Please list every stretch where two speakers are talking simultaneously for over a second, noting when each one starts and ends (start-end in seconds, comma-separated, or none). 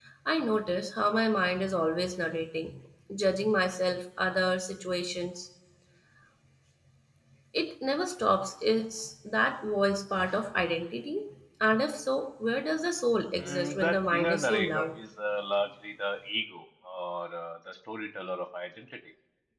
13.4-14.9